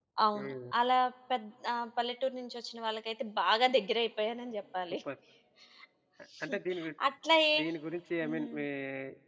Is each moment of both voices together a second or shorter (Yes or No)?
Yes